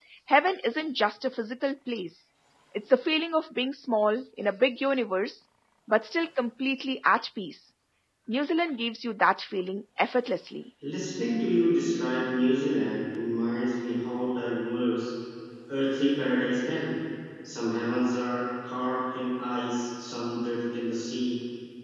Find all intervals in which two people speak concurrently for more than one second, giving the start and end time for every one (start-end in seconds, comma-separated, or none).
none